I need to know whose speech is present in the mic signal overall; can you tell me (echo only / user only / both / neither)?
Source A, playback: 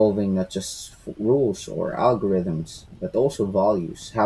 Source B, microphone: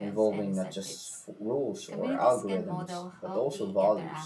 both